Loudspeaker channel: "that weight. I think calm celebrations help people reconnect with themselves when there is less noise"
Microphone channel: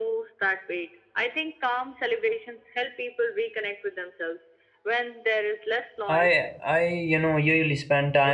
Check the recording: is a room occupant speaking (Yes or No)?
Yes